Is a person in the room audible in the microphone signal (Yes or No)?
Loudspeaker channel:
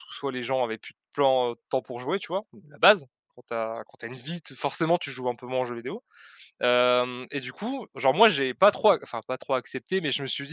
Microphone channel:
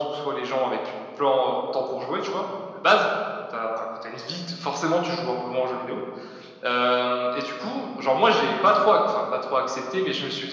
No